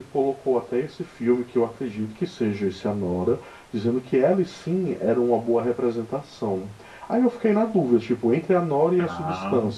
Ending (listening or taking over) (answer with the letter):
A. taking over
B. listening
B